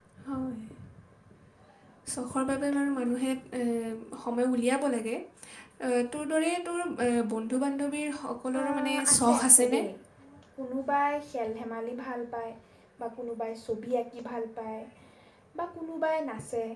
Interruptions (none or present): present